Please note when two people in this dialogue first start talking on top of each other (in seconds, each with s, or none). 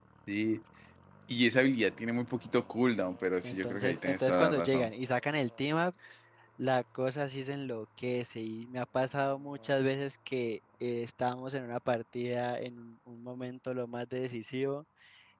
3.4 s